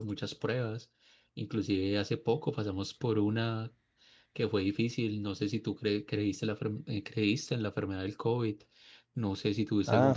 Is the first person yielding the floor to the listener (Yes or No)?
No